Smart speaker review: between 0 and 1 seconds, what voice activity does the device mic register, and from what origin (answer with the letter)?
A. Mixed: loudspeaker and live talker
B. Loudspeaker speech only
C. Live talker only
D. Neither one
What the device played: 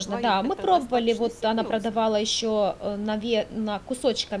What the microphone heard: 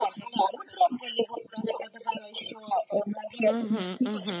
B